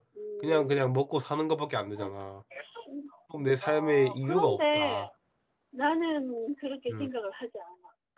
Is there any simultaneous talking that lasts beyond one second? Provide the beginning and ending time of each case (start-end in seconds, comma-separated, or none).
3.6-5.0